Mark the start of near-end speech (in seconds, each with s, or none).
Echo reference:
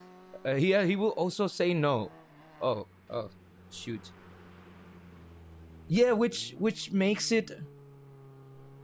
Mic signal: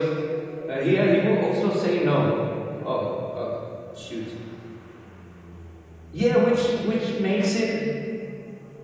none